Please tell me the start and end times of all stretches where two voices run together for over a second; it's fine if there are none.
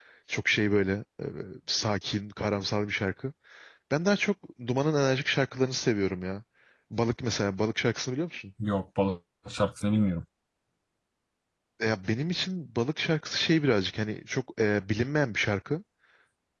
none

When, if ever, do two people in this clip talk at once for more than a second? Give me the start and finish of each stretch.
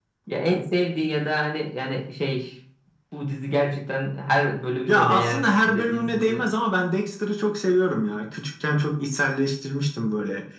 4.9-6.5

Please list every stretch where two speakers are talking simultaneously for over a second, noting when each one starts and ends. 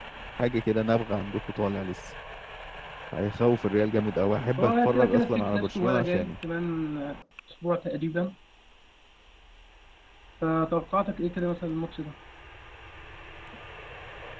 4.6-6.3

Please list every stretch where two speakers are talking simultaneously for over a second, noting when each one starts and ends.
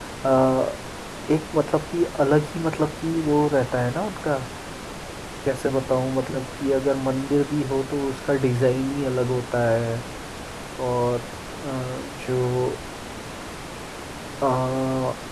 none

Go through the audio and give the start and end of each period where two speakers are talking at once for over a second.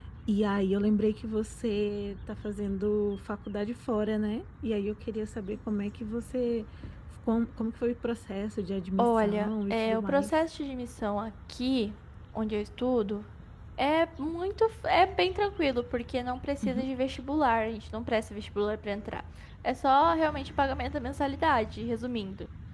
9.0-10.3

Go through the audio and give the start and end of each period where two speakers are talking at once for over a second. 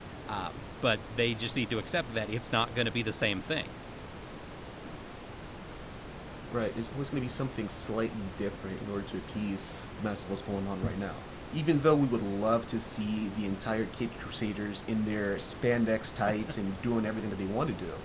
none

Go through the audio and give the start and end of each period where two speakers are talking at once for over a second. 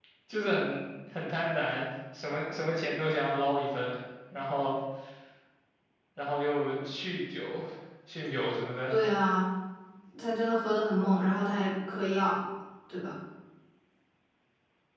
none

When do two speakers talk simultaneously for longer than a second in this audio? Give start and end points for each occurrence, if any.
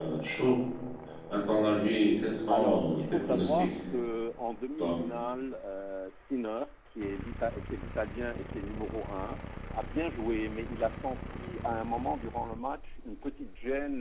2.5-3.7

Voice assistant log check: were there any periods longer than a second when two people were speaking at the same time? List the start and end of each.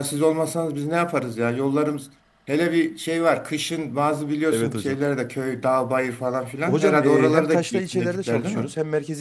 6.7-8.7

